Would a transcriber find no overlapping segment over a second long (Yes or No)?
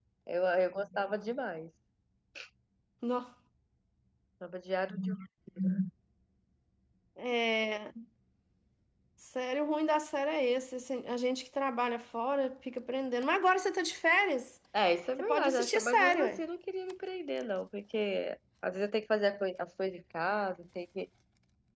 No